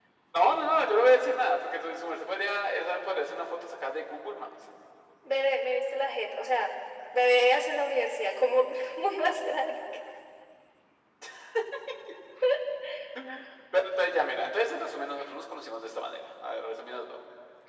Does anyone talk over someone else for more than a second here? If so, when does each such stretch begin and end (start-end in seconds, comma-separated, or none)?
none